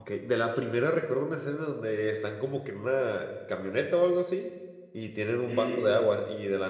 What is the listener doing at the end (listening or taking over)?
listening